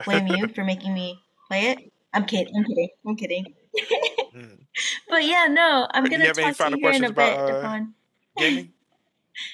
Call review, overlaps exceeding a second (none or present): present